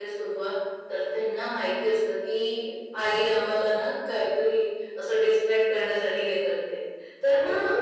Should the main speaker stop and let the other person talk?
No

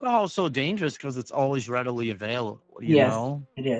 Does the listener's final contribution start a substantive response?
Yes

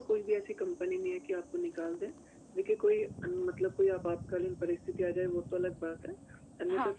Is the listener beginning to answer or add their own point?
No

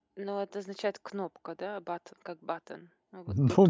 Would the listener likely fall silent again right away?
No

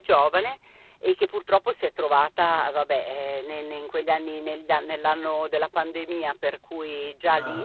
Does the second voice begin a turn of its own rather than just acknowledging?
No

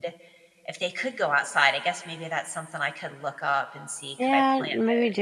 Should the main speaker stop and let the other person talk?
Yes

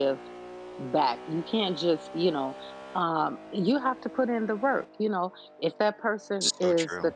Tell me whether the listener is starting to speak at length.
No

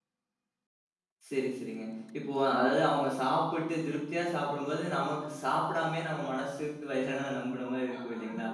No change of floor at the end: No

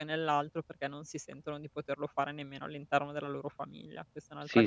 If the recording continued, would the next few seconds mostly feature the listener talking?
Yes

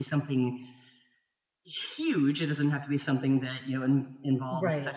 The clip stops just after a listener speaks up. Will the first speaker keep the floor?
Yes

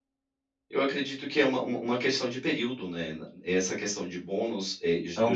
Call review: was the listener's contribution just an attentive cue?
No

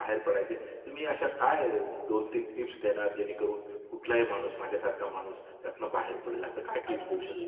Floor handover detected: Yes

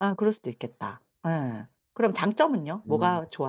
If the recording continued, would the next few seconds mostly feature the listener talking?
No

